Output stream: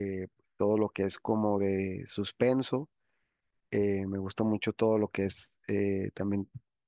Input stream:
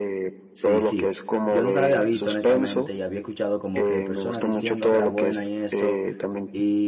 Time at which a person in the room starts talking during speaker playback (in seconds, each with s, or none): 0.5 s